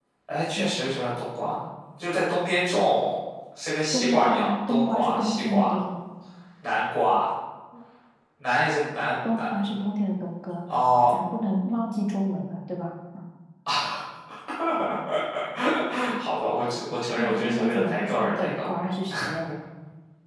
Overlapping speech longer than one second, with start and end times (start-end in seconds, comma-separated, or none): 3.9-5.8, 17.2-18.7